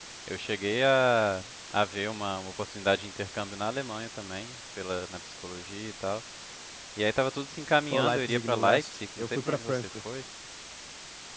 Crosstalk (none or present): present